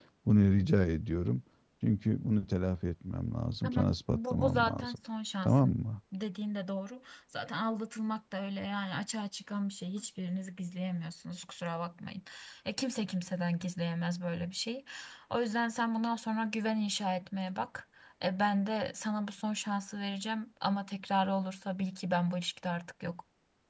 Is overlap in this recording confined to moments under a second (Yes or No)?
No